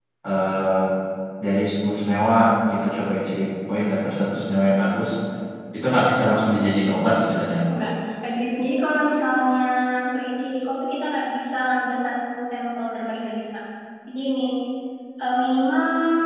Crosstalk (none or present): none